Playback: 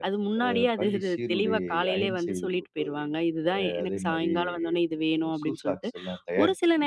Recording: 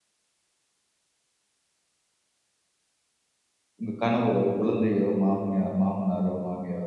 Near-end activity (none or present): present